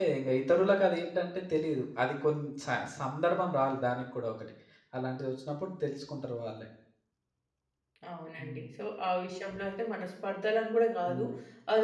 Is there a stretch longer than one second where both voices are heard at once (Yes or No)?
No